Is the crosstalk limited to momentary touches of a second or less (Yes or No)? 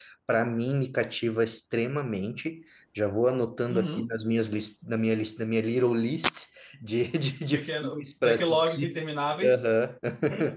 No